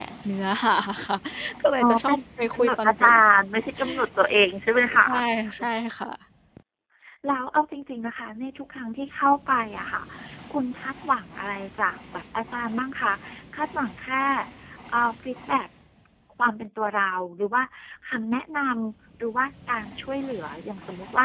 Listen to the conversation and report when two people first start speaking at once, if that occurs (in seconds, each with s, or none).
1.8 s